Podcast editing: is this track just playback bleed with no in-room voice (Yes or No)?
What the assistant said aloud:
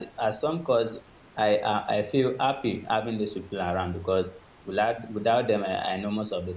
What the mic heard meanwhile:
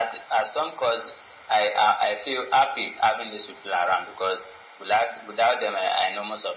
Yes